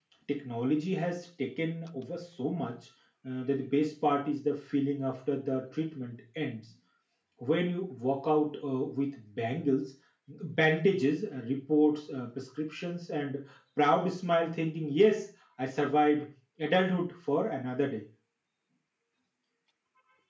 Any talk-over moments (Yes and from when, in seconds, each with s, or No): No